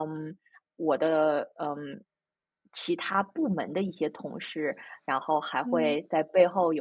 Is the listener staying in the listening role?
Yes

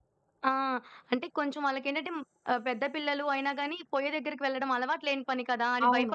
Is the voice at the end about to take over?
Yes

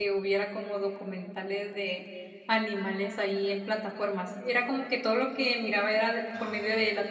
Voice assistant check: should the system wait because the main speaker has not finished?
Yes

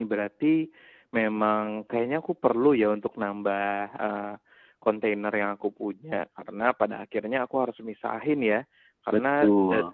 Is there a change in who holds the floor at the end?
No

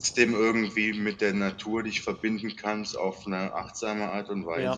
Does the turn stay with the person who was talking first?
No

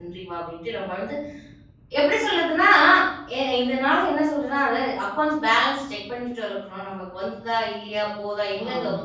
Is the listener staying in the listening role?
Yes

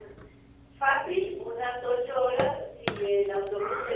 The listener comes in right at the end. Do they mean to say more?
No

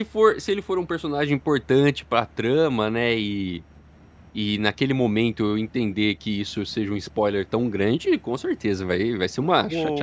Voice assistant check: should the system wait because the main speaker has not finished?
No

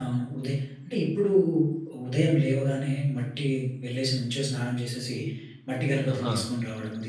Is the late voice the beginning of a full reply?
No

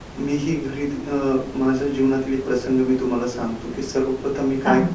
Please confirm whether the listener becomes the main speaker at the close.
No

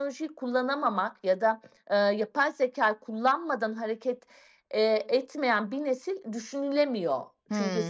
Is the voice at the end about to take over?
Yes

